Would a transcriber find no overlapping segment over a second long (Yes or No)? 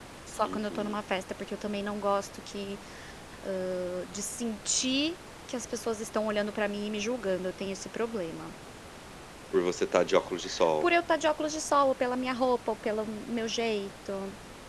Yes